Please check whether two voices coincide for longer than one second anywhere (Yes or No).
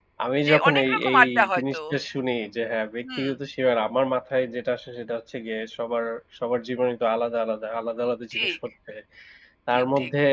Yes